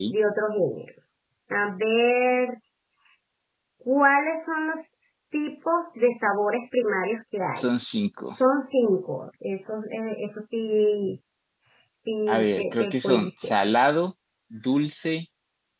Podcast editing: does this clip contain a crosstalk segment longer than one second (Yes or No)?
Yes